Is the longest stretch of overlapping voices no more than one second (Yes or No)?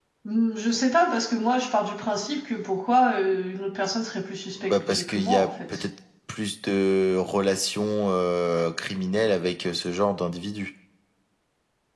No